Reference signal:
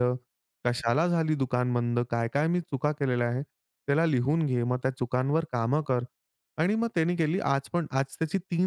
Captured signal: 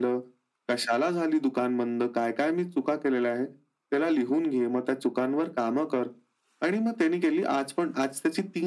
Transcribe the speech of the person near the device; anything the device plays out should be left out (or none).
none